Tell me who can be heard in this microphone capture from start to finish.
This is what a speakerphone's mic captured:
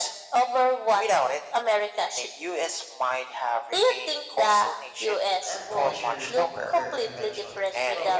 both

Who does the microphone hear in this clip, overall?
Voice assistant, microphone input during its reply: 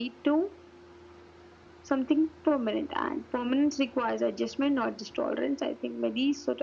echo only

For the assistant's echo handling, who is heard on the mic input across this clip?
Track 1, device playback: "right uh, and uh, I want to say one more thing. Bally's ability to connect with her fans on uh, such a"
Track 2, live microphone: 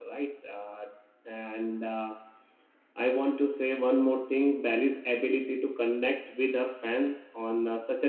echo only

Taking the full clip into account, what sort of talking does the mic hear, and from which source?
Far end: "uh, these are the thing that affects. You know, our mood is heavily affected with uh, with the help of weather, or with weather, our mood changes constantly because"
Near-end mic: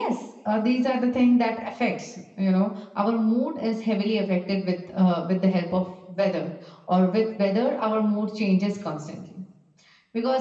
echo only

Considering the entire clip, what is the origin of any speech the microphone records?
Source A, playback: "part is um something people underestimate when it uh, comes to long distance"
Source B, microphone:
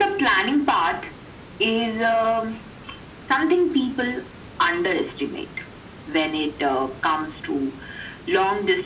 echo only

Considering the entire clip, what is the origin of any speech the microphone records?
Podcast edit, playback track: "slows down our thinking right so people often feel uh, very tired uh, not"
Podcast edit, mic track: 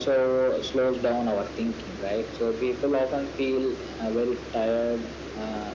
echo only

